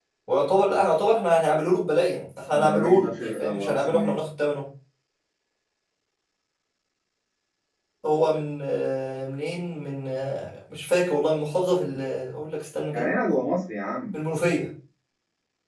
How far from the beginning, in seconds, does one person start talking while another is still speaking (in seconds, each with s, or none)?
2.5 s